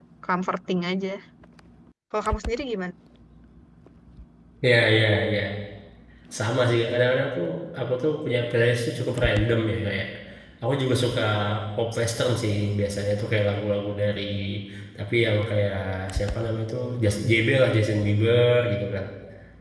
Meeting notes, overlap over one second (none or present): none